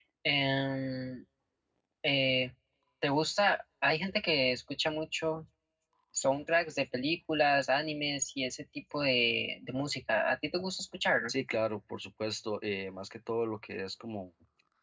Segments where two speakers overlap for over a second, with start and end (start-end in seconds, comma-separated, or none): none